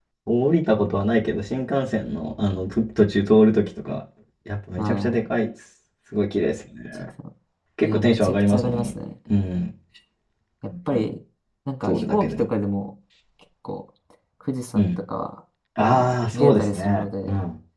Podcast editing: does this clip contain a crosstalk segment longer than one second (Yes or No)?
Yes